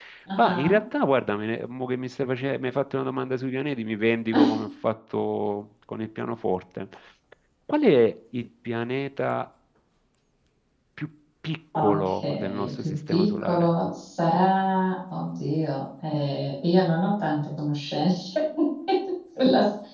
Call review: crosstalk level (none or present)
present